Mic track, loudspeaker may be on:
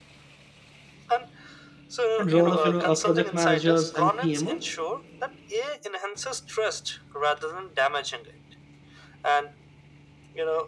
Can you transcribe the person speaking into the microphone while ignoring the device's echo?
and role of you know uh, project managers and pmo

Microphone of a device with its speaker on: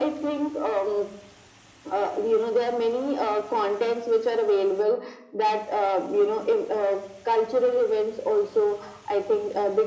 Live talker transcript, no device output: none

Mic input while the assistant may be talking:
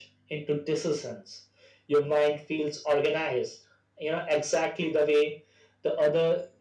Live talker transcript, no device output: none

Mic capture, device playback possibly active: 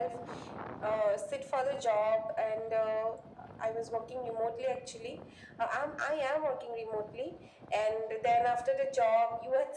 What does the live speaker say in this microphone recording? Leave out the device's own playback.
none

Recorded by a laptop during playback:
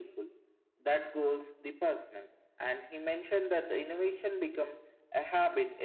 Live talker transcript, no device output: none

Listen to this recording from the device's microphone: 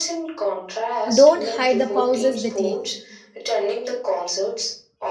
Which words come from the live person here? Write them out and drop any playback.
don't hide the pauses they take.

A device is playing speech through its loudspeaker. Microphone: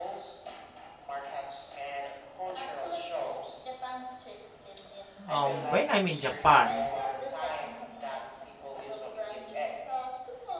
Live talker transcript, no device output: um, when I'm in Japan,

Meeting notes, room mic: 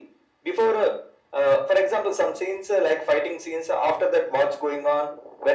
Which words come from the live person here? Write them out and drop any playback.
none

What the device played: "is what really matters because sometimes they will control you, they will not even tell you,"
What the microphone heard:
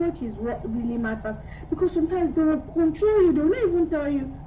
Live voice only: none

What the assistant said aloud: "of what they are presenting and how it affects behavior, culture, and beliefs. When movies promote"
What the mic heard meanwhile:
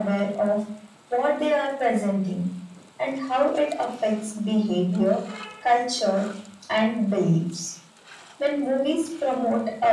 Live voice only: none

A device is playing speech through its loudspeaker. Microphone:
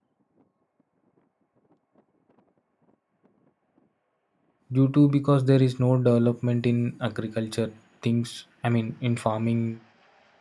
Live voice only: due to because there is no development in agriculture things i mean in farming

